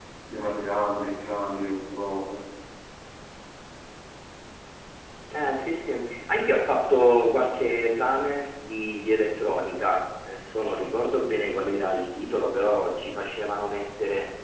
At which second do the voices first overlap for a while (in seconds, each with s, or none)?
none